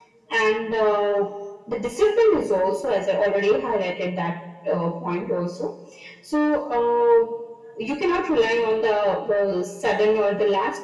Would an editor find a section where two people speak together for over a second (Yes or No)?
No